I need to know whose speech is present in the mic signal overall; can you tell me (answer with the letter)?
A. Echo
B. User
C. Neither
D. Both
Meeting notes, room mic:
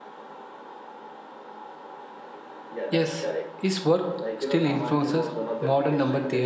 D